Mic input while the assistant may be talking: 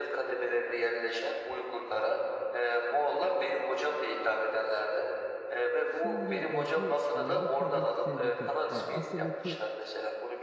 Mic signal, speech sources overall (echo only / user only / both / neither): both